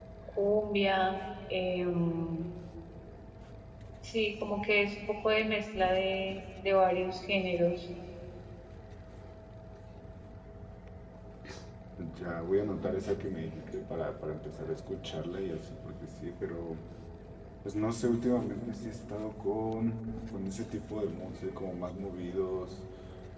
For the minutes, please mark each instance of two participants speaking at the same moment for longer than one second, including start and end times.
none

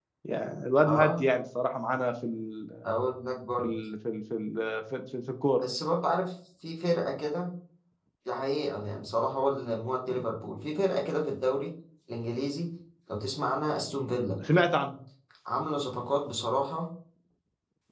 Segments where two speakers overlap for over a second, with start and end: none

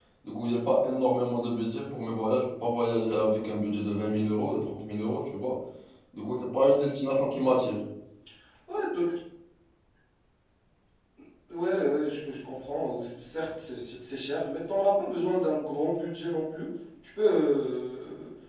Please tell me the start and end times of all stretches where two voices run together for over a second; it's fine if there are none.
none

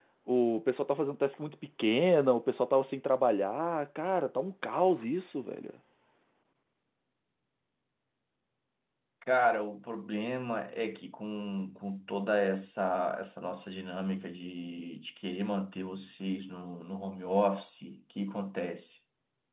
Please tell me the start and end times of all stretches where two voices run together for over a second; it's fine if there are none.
none

